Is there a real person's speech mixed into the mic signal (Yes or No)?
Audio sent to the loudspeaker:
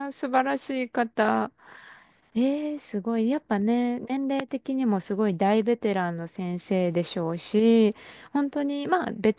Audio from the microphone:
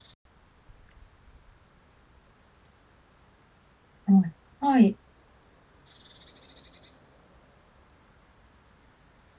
Yes